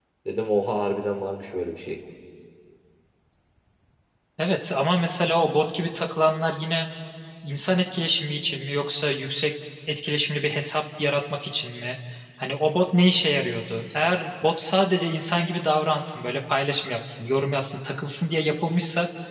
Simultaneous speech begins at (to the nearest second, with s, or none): none